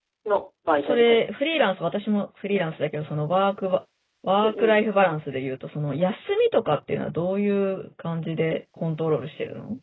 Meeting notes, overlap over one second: none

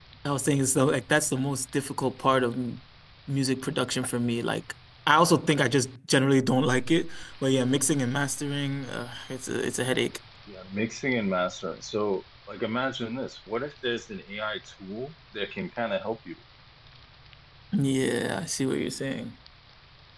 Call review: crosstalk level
none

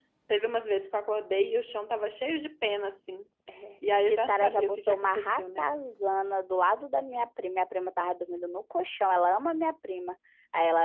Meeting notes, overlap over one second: present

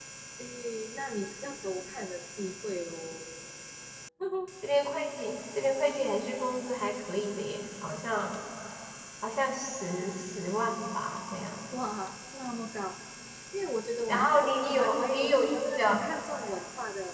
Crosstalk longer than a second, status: present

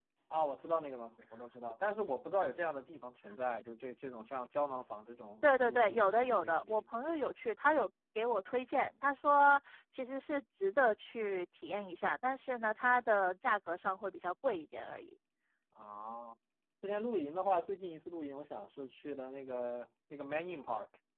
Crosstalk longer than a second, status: present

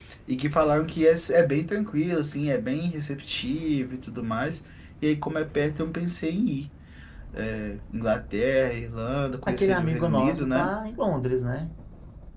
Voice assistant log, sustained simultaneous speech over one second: present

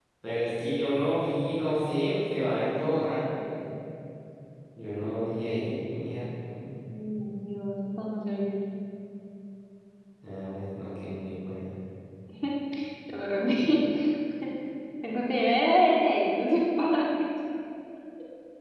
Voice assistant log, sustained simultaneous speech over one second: none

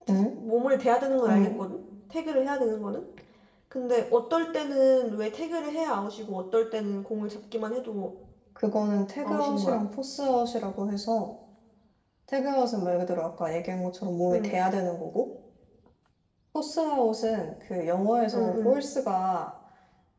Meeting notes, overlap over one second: none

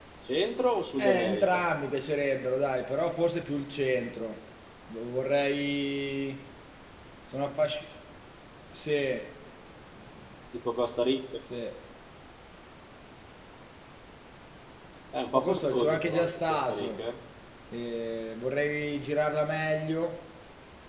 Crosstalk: present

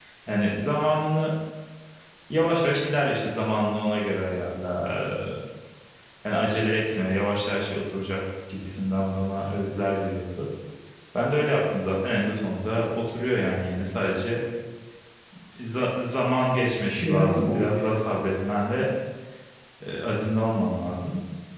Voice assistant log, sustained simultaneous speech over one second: present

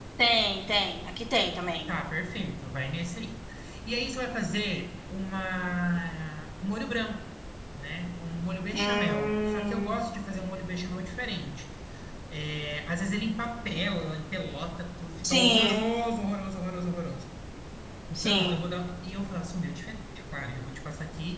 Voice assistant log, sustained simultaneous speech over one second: present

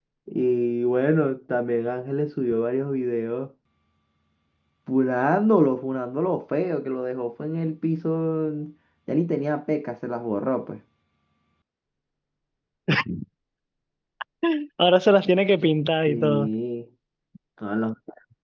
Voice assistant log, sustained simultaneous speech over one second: none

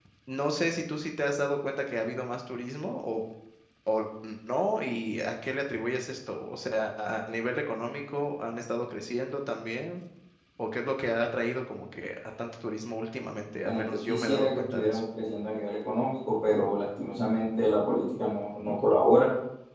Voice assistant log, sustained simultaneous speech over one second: present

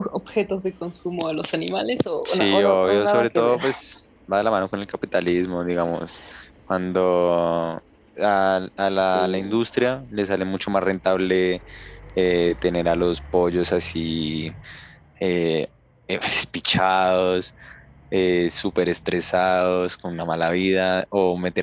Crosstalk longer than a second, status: present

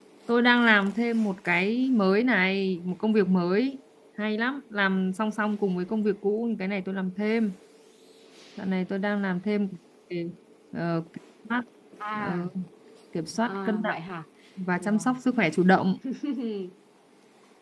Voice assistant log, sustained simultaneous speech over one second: none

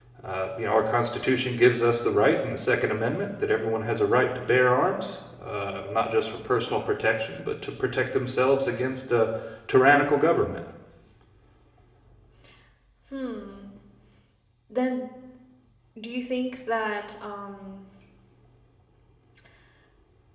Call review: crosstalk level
none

